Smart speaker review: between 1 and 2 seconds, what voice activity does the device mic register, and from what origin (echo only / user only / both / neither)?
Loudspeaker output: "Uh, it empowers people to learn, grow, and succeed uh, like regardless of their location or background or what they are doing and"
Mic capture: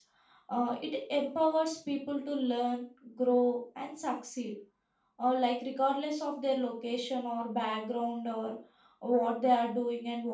echo only